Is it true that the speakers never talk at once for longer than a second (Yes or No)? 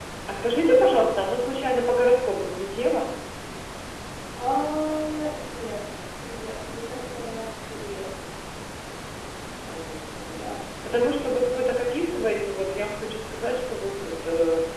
Yes